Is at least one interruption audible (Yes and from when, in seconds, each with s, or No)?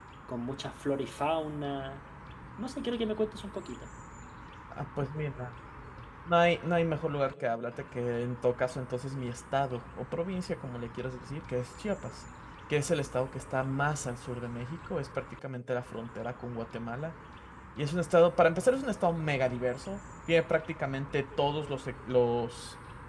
No